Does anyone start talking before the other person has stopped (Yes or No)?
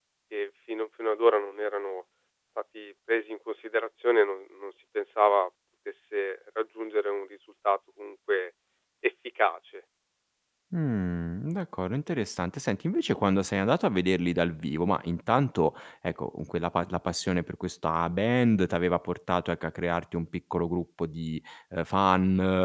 No